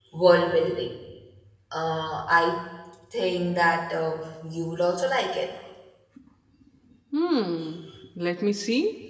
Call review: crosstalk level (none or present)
none